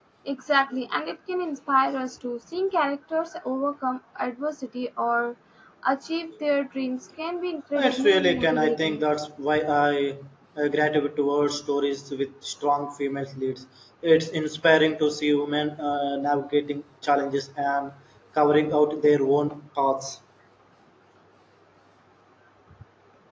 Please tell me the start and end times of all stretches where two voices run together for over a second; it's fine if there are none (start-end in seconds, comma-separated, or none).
7.8-9.0